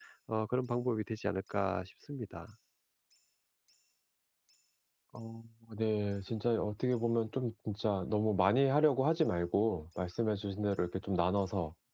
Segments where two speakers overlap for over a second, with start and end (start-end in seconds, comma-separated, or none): none